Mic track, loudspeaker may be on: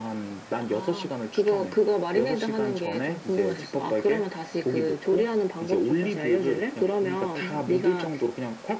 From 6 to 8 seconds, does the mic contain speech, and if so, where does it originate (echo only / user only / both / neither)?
echo only